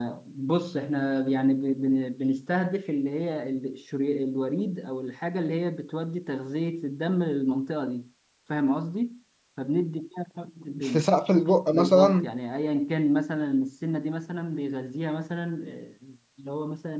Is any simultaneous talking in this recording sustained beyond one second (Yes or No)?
No